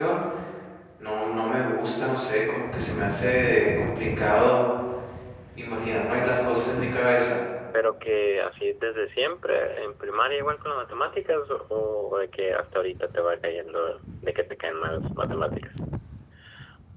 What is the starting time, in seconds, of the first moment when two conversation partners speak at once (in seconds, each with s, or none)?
none